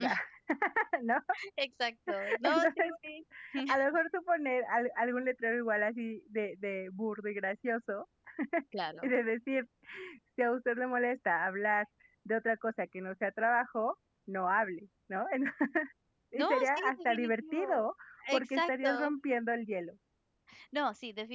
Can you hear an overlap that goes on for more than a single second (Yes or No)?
Yes